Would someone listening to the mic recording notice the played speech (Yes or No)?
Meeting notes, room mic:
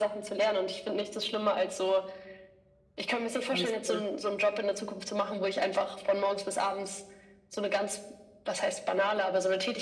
Yes